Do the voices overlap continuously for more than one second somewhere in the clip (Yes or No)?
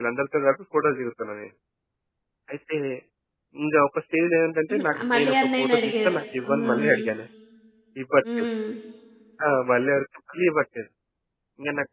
Yes